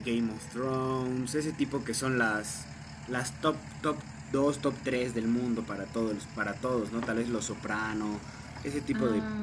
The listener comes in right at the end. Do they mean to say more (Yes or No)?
No